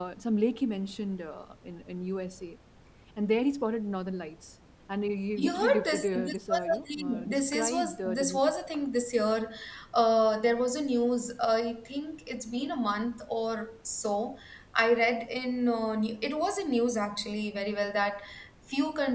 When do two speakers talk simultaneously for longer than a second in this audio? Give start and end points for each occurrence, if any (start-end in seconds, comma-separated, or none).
5.4-8.4